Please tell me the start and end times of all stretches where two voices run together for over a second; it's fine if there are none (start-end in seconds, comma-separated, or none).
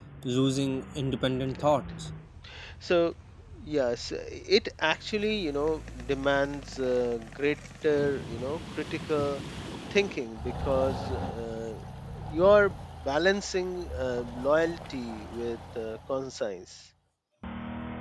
none